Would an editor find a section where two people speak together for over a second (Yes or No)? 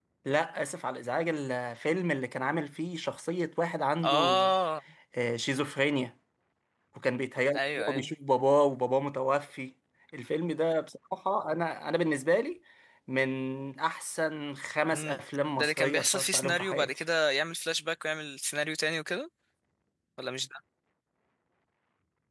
Yes